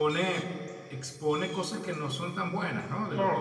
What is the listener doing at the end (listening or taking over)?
taking over